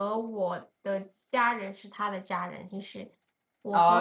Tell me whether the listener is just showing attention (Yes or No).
No